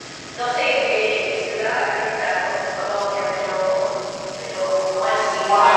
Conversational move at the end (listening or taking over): taking over